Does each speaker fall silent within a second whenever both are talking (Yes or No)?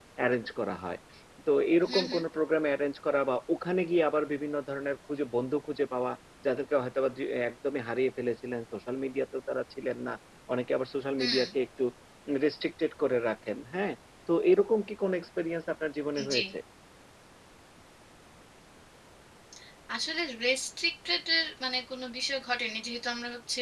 Yes